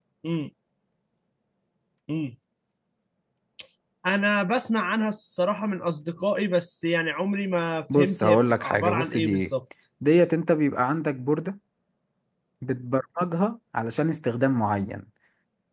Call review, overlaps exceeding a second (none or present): present